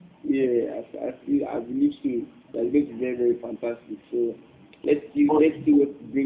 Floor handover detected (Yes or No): No